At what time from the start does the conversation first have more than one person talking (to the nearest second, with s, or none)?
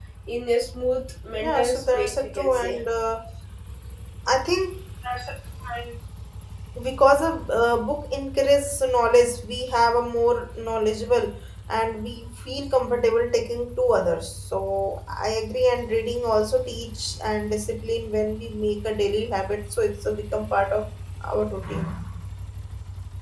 1 s